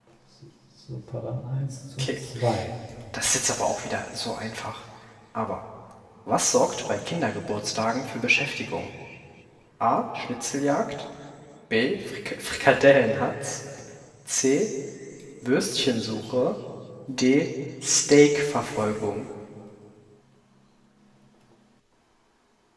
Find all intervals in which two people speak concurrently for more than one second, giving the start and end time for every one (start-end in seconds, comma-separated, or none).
none